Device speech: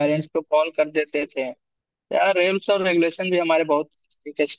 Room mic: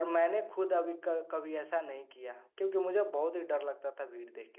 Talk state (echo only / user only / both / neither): user only